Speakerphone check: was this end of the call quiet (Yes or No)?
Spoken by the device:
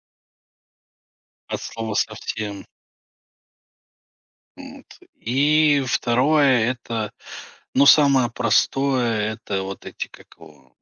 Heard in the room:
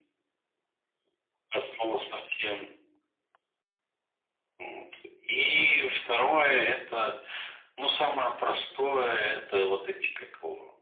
Yes